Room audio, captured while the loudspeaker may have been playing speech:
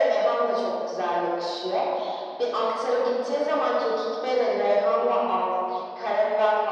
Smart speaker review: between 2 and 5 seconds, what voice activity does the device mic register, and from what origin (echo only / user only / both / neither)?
echo only